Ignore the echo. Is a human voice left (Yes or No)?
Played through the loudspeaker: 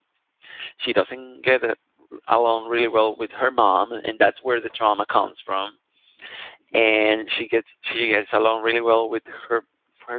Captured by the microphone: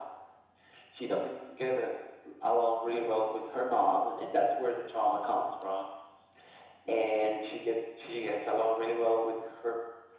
No